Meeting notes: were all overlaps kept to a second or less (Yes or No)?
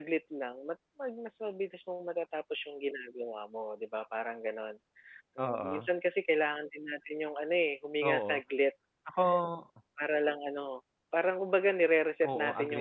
Yes